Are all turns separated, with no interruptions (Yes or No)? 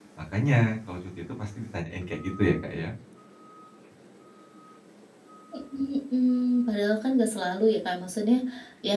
Yes